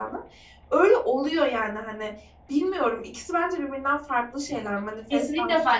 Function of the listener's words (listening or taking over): taking over